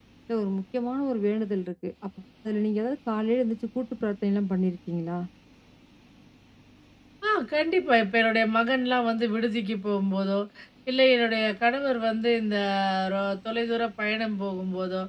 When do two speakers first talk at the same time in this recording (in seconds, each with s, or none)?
none